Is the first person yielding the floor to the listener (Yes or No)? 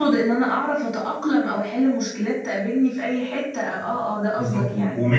Yes